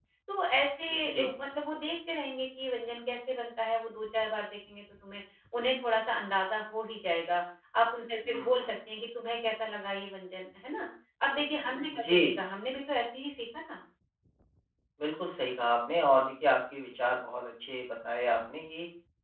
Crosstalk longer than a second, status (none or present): none